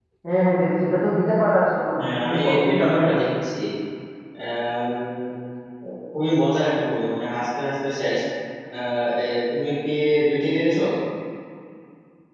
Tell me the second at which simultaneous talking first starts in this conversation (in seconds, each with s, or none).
2.0 s